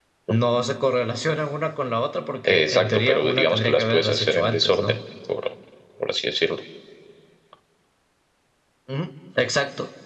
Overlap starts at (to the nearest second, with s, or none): 2 s